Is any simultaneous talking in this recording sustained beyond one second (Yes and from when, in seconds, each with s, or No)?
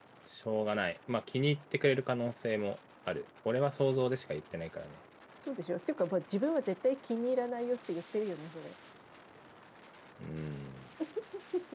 No